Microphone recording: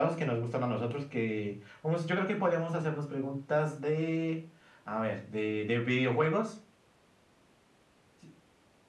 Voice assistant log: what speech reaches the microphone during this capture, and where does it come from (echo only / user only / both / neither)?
echo only